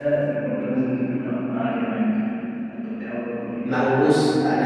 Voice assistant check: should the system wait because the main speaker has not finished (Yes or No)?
No